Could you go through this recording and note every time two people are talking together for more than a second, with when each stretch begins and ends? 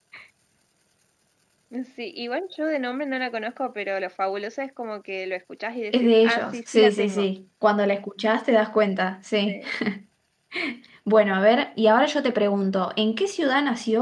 5.9-7.2

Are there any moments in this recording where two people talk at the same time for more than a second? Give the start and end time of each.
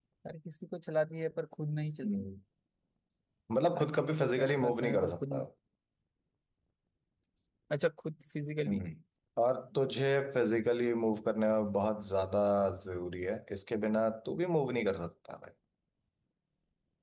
3.8-5.4

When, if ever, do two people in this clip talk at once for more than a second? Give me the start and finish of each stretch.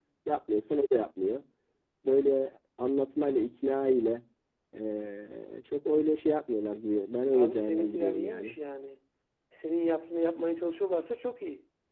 7.3-8.6

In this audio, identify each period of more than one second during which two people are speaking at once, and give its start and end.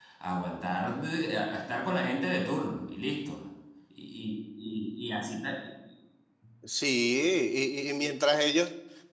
none

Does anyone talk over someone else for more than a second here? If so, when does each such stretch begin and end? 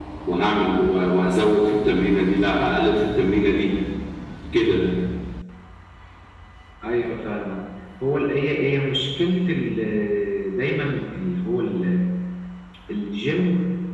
none

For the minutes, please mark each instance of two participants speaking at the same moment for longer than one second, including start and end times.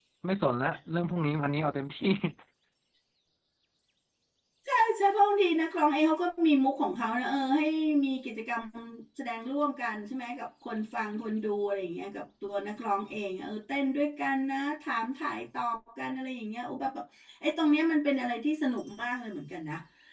none

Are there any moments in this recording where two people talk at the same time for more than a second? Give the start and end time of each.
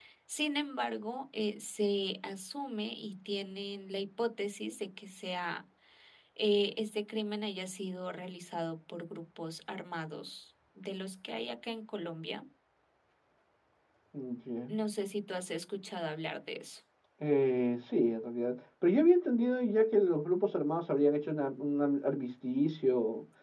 none

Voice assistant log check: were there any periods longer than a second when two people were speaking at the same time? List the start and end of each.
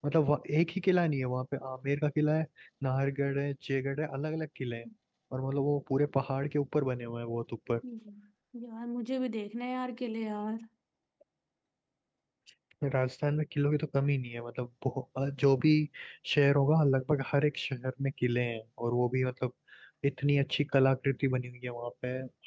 none

